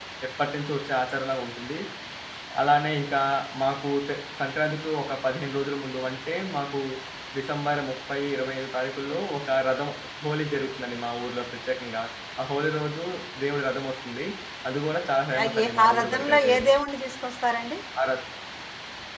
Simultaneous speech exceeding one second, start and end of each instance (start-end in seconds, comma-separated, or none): 15.4-16.7